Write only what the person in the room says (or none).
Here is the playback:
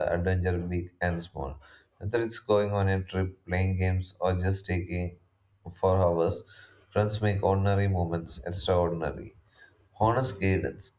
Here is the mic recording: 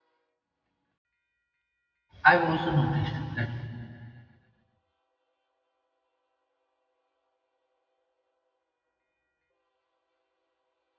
I've also noticed that